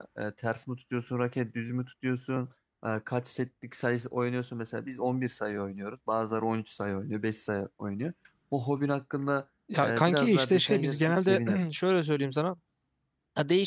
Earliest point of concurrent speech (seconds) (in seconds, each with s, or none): 9.7 s